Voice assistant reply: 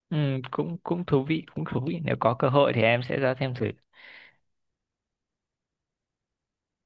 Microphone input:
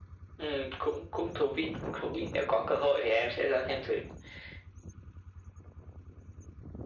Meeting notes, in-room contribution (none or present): none